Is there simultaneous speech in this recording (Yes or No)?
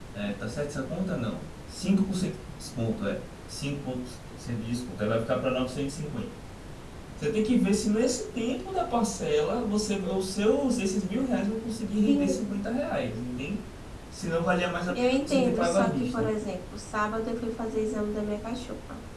Yes